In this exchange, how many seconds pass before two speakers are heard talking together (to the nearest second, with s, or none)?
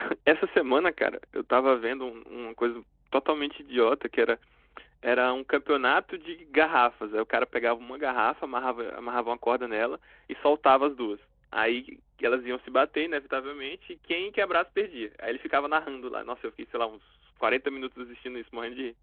none